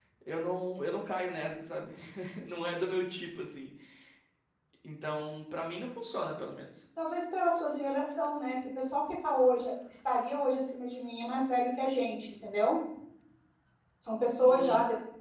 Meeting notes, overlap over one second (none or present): none